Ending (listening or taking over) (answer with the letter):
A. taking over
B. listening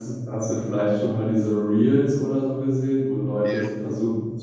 B